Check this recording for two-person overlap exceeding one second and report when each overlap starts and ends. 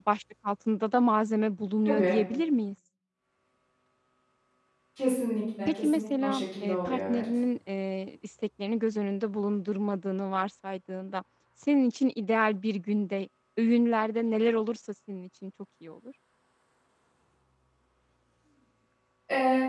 5.7-7.2

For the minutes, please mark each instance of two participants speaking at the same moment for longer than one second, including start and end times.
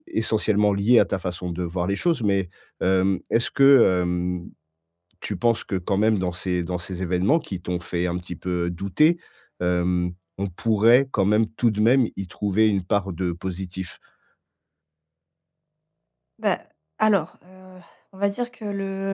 none

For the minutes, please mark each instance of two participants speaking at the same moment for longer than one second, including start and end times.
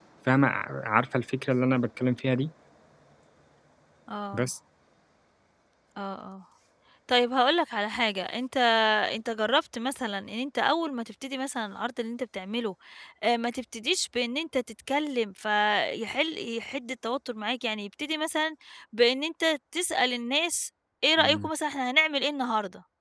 none

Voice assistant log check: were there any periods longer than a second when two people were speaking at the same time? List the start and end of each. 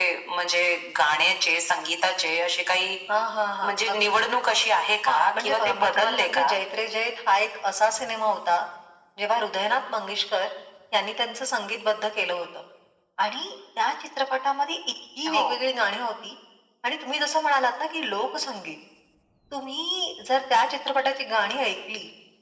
5.1-6.5

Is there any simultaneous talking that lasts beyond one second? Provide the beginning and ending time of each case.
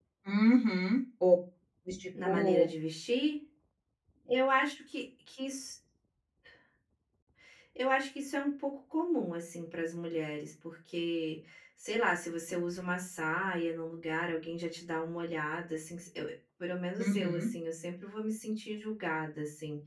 none

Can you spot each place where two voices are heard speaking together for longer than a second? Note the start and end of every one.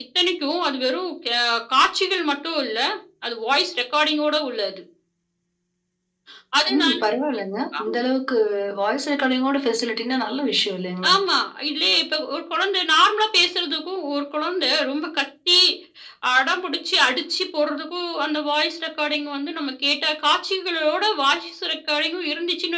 none

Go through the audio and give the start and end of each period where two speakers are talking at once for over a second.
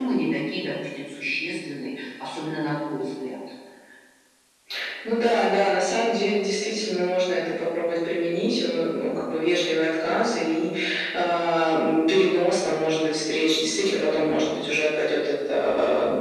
none

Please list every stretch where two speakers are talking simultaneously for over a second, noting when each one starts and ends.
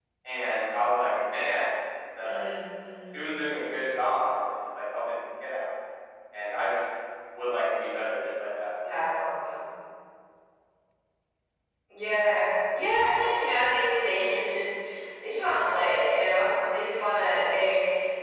none

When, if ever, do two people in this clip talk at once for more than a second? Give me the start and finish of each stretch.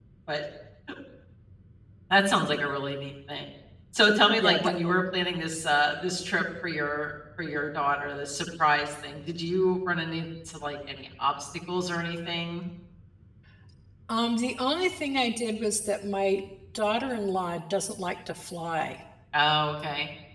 none

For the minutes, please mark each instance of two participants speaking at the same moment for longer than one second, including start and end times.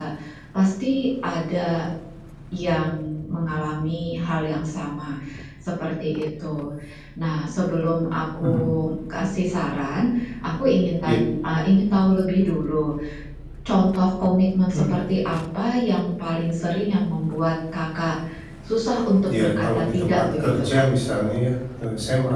19.4-20.8

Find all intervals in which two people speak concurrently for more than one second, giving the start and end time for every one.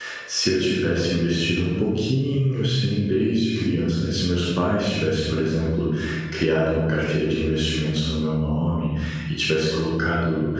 none

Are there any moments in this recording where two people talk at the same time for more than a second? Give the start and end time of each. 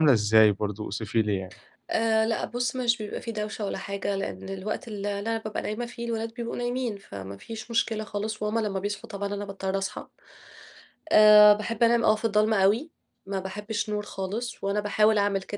none

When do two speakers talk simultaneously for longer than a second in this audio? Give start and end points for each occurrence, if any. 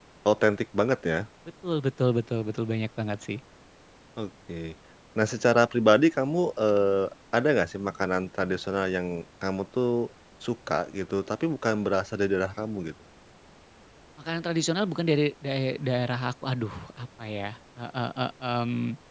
none

